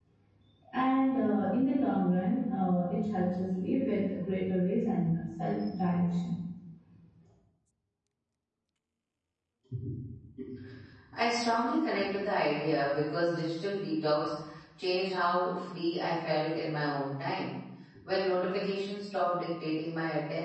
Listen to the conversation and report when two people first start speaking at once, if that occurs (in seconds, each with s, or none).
none